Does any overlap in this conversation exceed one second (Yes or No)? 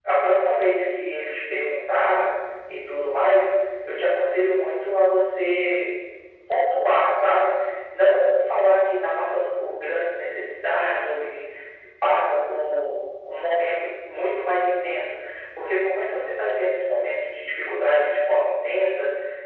No